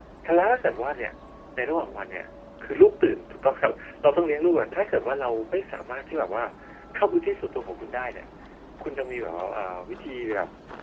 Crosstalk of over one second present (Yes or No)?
No